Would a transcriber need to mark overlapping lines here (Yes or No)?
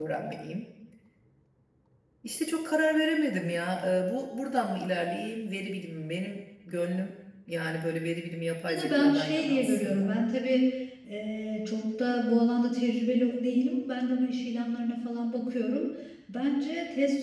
Yes